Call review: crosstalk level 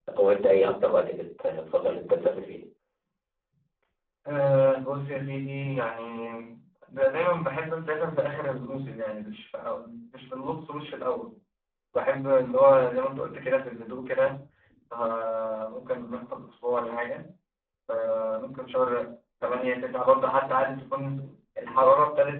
none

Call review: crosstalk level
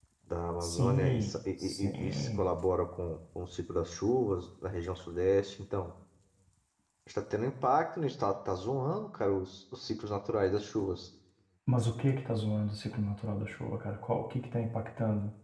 present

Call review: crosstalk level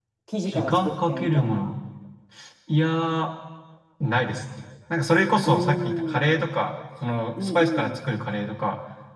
present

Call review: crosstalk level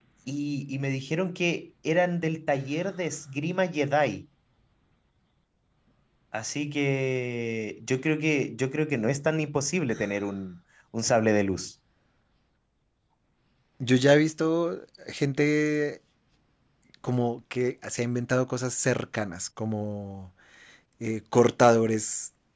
none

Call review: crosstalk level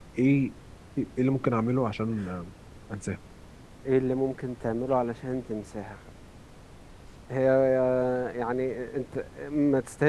none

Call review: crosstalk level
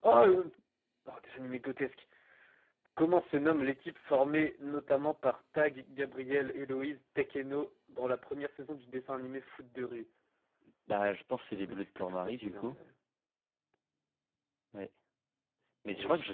present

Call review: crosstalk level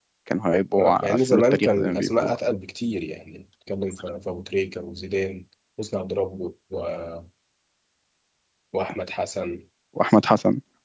present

